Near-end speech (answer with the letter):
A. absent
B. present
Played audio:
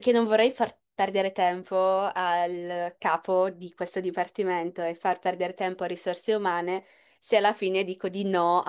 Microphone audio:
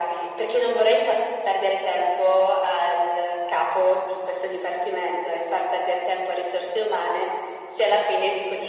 A